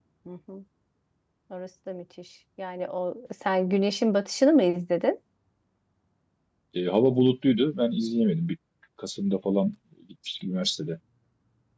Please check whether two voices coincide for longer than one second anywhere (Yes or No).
No